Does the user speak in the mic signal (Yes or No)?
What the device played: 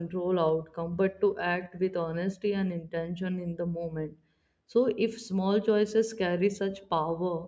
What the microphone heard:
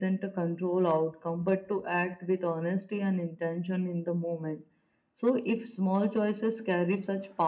No